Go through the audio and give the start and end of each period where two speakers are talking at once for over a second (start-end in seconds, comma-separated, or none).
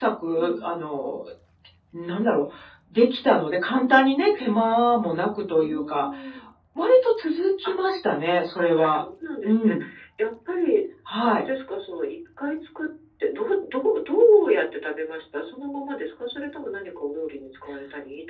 none